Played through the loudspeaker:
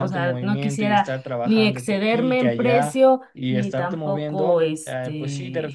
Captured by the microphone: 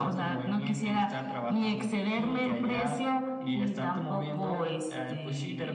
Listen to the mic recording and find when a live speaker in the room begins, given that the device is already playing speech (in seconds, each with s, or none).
none